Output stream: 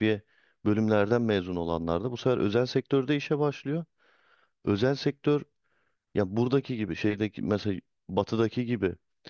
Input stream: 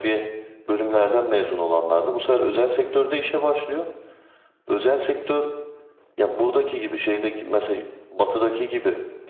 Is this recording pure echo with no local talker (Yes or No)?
Yes